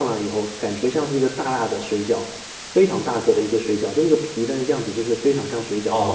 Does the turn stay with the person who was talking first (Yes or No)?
No